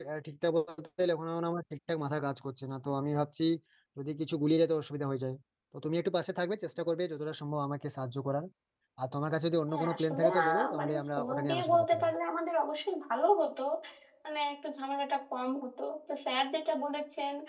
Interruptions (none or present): present